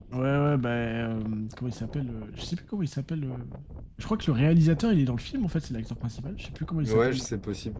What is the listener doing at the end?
taking over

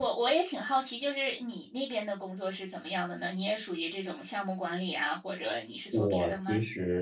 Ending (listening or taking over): taking over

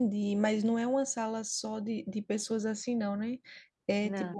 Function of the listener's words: listening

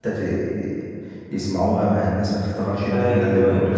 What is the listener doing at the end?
taking over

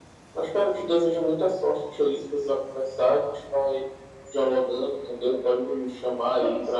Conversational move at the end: listening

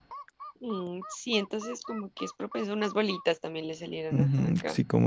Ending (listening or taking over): taking over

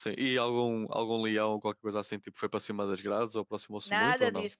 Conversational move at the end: taking over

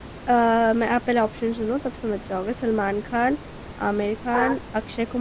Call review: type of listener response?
listening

